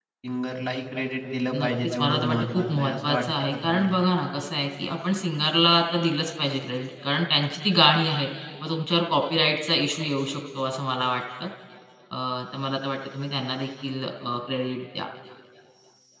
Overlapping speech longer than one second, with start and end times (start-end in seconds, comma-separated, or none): 1.5-4.0